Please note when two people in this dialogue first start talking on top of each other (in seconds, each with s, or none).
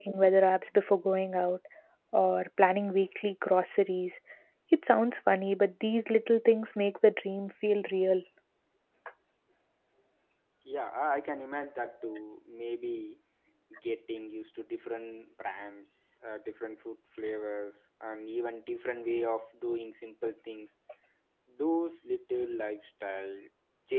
none